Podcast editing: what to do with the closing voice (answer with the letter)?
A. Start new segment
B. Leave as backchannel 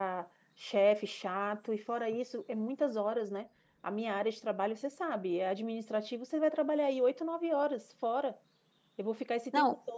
B